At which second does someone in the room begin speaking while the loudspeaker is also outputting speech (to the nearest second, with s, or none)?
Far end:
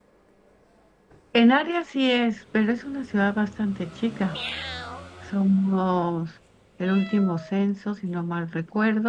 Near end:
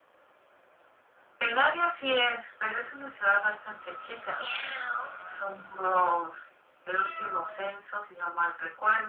none